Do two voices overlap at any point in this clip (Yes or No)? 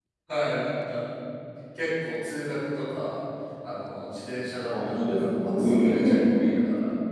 Yes